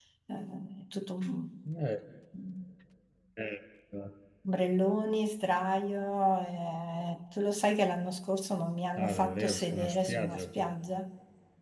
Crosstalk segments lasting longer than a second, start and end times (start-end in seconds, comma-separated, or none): 9.0-10.6